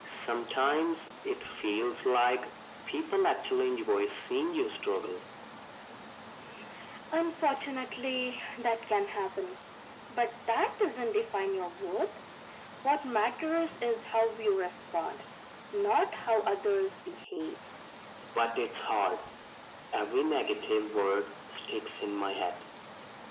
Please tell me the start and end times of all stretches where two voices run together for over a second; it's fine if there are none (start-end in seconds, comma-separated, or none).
none